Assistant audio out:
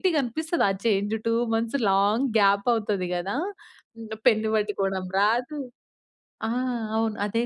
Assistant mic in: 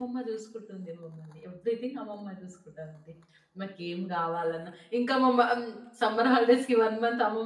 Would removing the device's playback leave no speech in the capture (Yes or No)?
No